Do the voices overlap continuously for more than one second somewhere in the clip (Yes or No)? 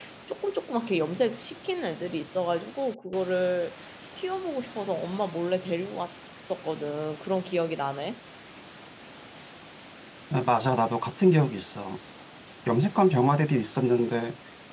No